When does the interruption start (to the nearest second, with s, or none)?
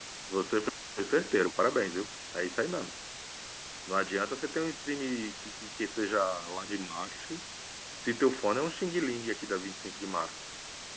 none